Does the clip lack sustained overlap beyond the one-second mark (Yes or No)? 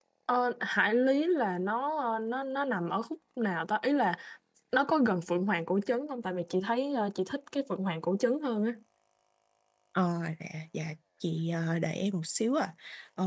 Yes